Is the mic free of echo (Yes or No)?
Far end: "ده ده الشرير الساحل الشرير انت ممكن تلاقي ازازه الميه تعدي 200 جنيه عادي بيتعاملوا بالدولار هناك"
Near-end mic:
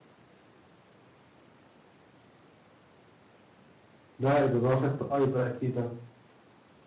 Yes